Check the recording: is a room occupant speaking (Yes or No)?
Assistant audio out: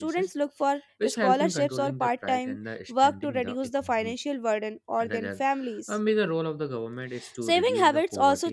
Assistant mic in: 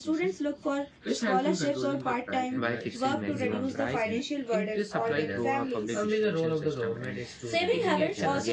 Yes